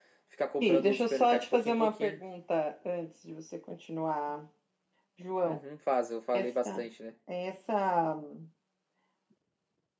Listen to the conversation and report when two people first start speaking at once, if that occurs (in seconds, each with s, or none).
0.6 s